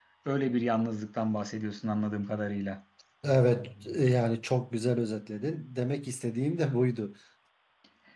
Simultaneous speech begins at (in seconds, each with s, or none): none